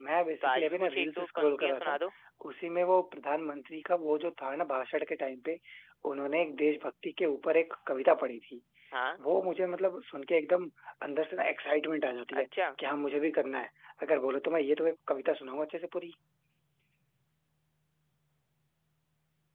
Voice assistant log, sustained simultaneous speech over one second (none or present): present